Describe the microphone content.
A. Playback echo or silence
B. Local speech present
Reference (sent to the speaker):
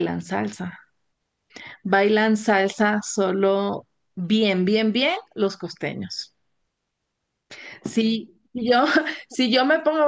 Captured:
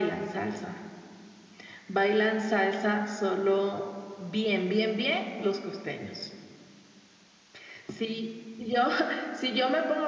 A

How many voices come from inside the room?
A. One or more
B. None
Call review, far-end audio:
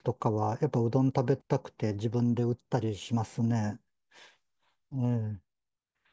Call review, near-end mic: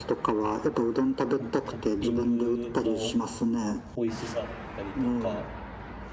A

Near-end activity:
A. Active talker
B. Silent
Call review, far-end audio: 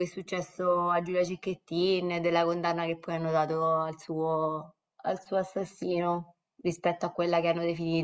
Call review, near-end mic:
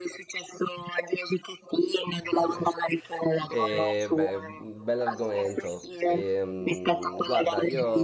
A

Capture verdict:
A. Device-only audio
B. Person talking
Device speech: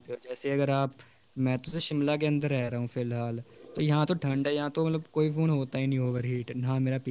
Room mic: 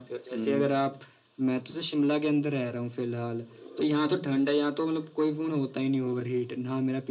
B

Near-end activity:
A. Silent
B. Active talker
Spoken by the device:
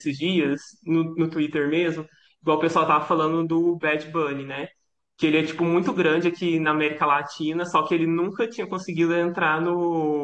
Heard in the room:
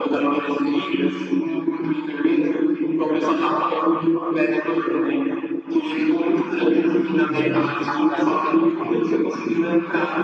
B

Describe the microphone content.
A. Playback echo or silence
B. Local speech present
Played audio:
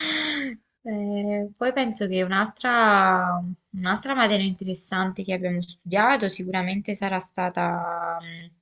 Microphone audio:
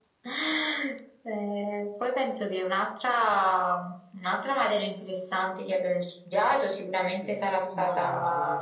B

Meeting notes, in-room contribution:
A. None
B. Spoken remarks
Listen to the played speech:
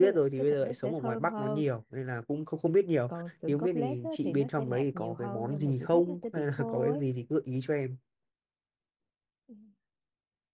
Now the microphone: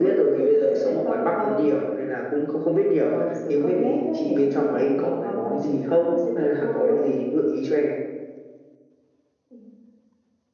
A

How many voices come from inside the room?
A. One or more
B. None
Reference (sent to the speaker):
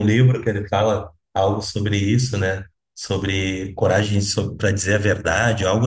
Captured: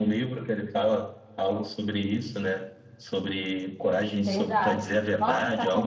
A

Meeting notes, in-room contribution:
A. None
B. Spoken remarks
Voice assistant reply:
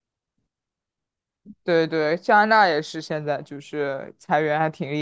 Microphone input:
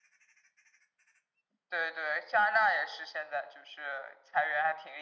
A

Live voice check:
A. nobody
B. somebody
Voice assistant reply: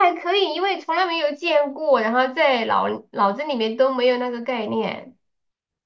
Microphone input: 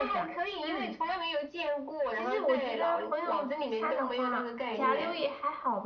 B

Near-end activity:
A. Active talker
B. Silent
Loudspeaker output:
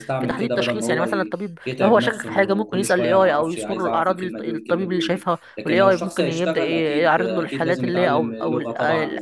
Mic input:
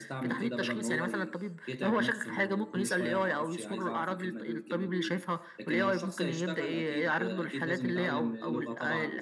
B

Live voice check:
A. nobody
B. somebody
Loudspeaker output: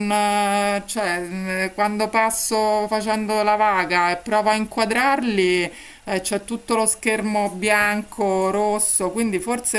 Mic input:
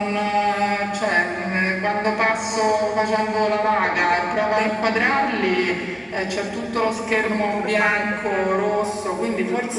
B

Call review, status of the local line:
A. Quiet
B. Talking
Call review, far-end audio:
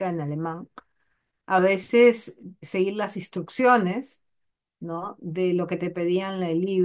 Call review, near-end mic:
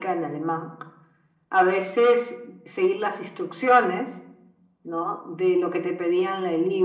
A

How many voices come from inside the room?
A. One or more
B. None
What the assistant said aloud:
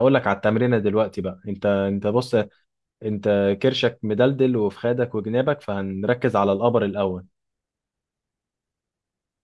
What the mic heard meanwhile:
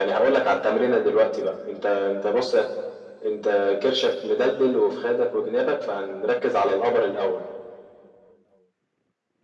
B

